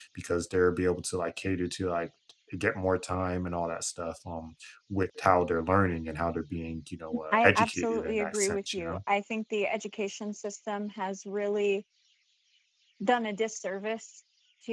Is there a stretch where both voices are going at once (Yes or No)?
Yes